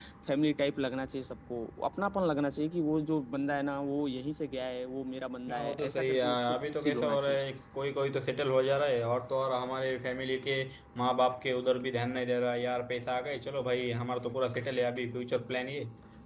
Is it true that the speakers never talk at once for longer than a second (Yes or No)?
No